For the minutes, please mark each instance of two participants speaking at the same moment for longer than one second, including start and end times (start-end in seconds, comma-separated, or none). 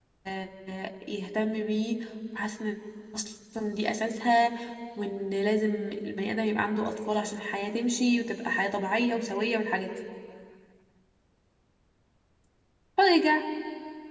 none